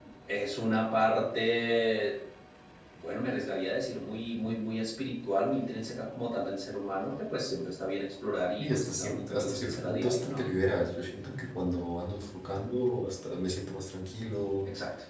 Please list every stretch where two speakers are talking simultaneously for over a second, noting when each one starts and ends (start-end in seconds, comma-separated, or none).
8.6-10.4